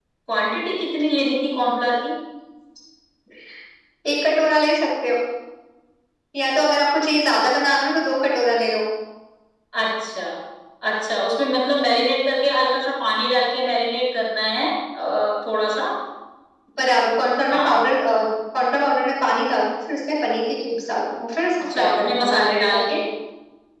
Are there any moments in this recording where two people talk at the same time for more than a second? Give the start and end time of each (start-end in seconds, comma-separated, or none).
21.6-23.0